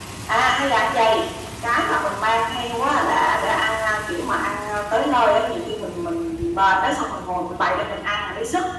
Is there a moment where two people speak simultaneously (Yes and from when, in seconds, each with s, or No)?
No